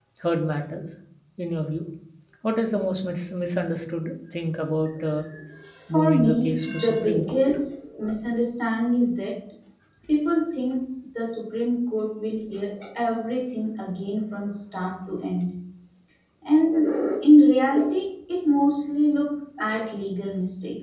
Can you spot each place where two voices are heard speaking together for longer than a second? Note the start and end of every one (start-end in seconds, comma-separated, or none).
5.9-7.4